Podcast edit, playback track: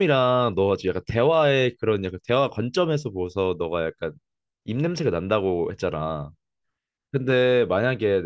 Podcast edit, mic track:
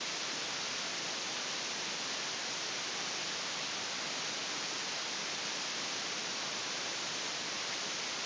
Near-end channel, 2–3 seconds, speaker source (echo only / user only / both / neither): neither